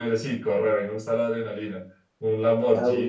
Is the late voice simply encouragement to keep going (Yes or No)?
Yes